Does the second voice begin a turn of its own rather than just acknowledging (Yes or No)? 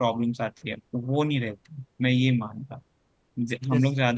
No